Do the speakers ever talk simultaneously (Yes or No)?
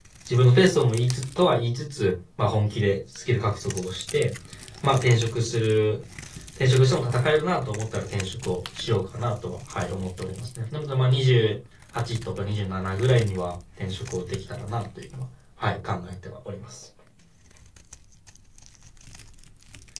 No